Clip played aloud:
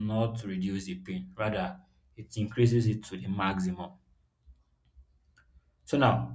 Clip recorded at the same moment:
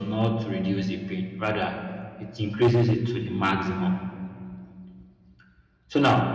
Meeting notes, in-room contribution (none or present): none